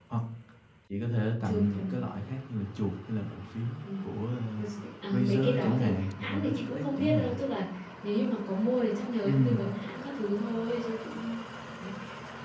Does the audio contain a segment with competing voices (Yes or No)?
Yes